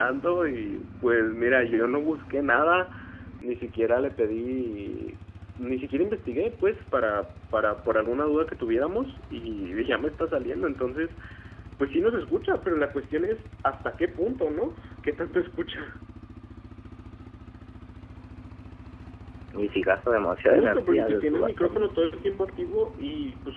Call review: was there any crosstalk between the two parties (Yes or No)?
Yes